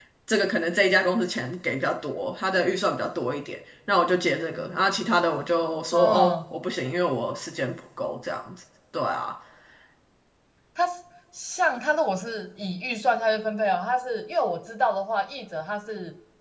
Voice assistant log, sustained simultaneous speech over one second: none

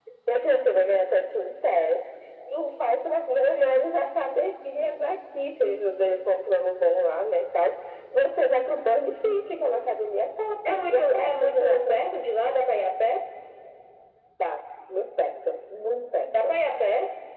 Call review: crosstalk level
present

